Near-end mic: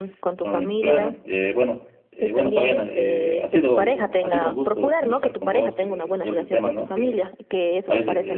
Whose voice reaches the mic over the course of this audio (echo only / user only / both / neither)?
both